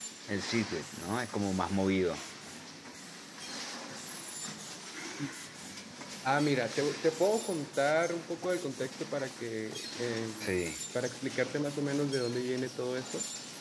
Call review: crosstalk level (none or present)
none